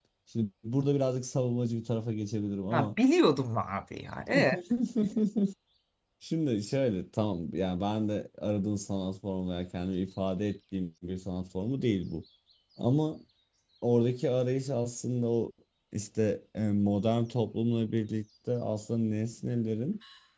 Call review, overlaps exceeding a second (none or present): none